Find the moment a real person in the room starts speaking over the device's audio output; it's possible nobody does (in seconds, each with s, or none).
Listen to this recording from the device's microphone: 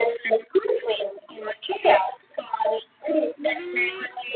3.4 s